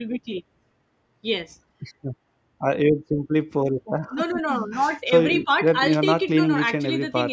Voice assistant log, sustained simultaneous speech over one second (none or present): present